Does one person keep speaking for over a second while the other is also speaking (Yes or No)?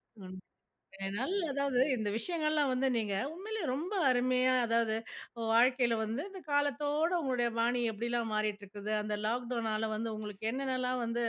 No